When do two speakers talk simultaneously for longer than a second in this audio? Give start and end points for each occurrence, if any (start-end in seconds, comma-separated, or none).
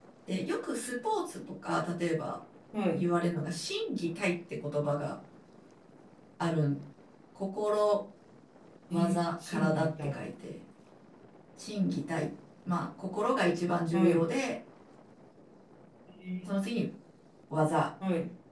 8.9-10.2